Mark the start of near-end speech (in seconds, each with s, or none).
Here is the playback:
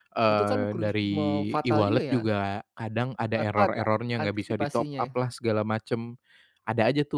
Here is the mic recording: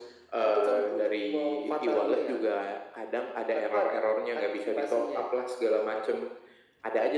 none